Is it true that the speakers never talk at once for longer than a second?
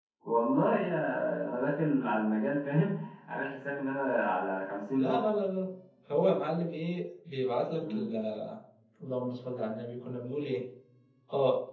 Yes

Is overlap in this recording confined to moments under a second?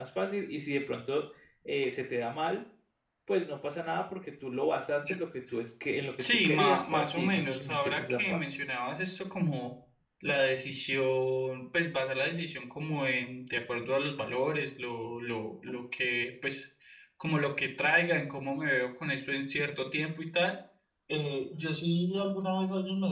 No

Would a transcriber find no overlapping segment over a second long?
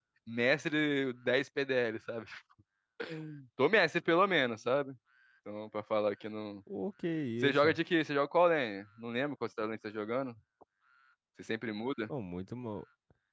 Yes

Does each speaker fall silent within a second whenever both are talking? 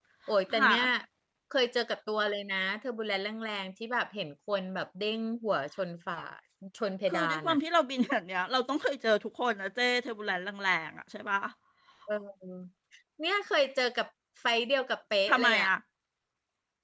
Yes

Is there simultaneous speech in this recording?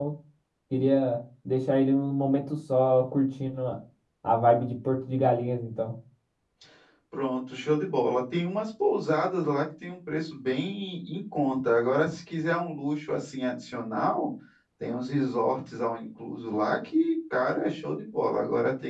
No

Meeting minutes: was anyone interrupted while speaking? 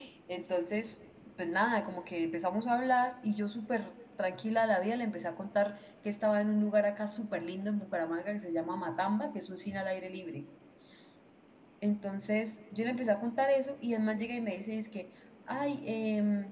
No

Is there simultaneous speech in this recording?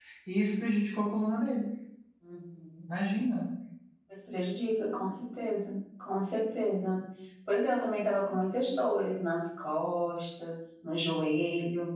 No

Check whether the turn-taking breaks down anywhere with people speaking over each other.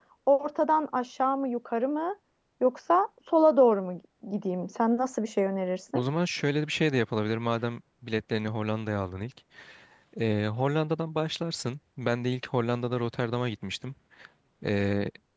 No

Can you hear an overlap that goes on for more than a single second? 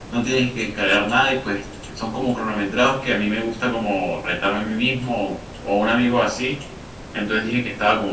No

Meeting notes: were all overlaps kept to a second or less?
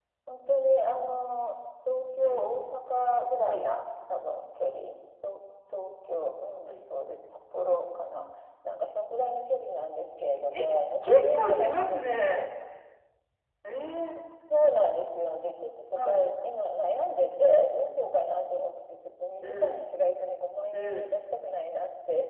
No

